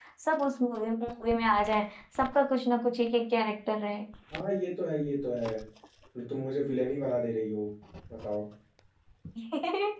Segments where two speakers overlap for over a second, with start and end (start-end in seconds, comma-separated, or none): none